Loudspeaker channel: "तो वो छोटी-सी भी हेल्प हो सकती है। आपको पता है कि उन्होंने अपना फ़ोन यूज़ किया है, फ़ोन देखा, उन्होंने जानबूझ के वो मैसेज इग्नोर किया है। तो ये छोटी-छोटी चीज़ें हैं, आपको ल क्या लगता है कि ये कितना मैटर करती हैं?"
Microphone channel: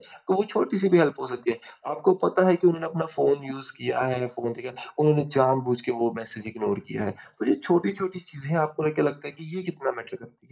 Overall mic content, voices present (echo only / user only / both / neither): echo only